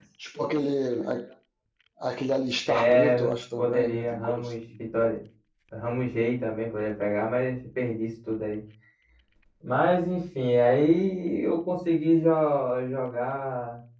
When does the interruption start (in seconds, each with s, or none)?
2.7 s